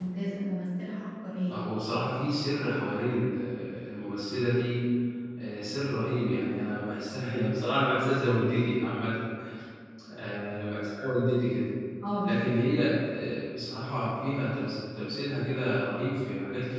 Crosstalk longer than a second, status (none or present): none